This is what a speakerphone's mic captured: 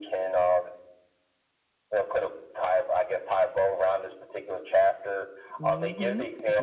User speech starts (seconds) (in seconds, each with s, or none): 5.6 s